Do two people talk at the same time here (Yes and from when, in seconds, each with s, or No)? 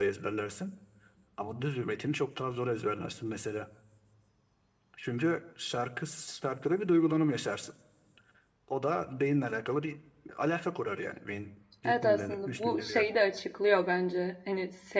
Yes, from 11.8 s